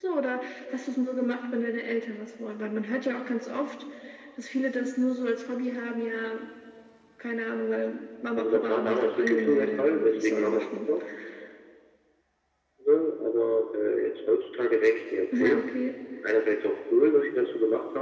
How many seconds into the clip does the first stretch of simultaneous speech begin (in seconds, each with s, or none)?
8.4 s